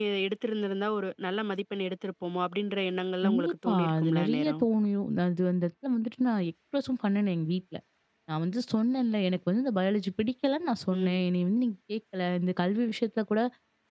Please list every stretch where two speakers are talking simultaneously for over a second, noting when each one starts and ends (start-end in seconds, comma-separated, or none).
3.2-4.6